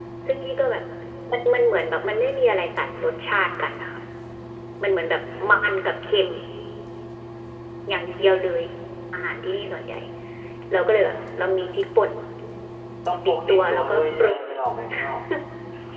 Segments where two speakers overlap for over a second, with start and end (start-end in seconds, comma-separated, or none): 13.2-14.5